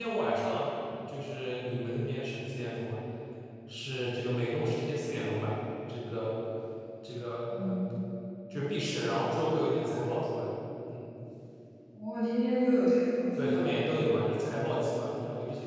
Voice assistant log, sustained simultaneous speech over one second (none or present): none